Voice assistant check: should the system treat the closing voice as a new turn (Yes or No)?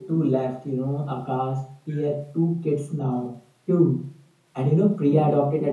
No